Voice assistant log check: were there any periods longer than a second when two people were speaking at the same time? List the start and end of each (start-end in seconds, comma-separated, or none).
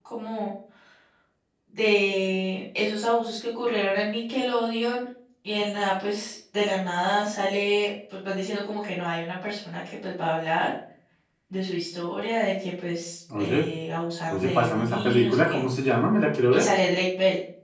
14.3-15.6